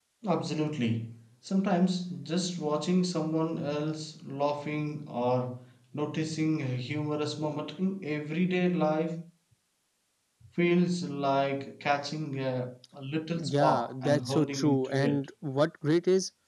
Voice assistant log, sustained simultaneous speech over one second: present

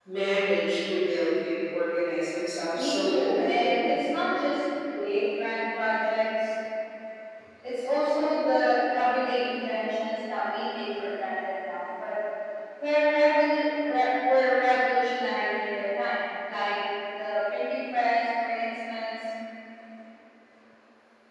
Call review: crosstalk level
present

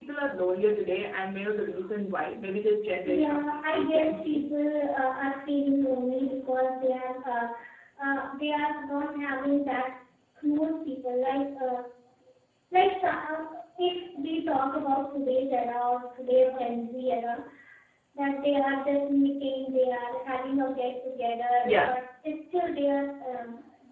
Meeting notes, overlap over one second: present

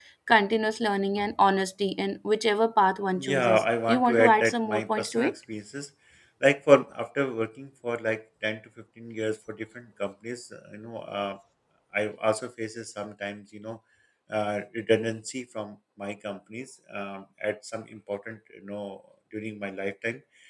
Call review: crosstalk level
present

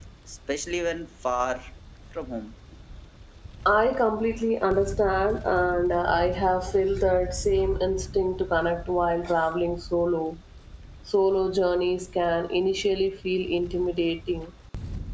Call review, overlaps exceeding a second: none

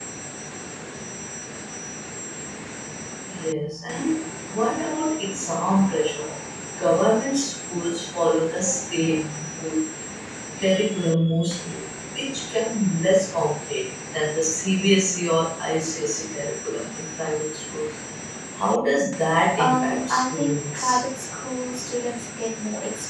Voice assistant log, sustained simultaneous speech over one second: present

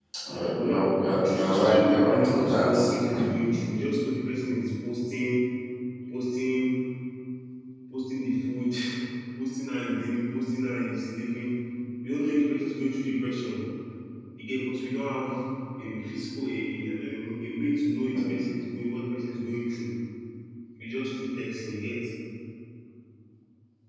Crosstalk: present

